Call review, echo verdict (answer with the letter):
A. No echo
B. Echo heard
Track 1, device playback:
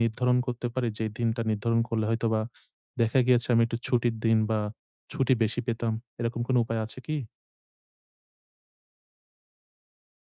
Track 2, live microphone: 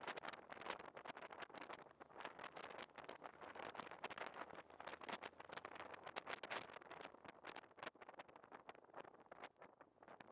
A